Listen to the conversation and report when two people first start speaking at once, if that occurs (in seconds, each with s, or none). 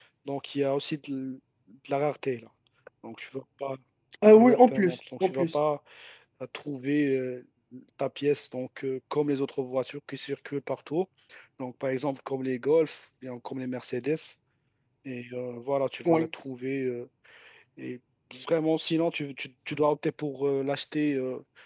4.3 s